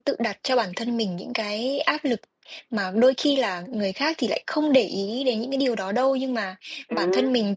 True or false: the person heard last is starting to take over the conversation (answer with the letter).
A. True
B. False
B